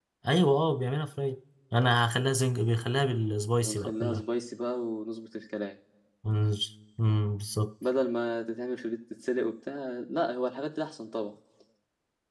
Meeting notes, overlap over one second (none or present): none